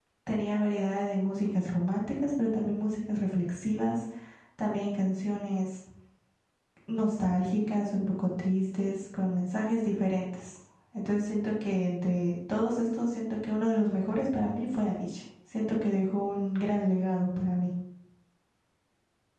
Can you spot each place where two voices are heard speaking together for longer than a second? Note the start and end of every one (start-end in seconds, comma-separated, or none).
none